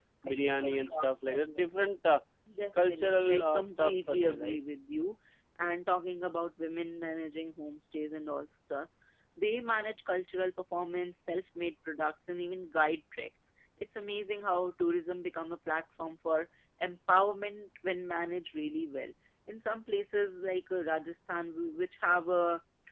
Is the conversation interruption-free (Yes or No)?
No